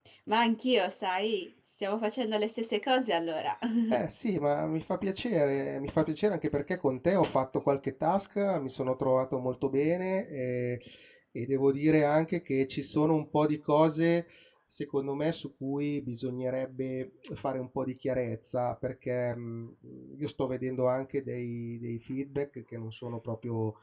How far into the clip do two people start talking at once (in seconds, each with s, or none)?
none